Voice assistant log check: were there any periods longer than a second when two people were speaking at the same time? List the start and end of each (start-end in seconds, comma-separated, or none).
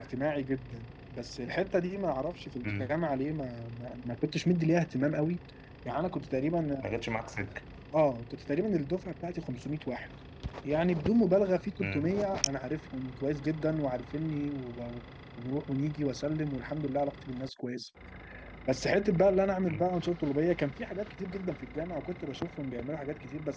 none